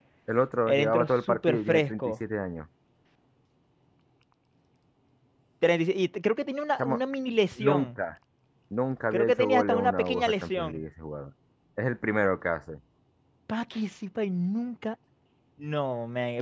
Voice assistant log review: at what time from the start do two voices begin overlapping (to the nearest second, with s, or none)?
1 s